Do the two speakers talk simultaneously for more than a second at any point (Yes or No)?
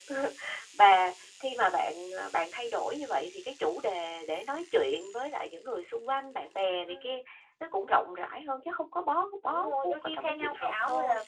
Yes